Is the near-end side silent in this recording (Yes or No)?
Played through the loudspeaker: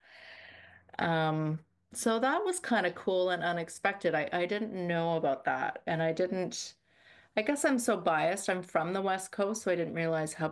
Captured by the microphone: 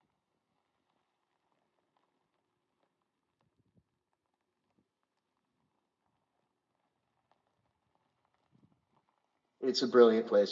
No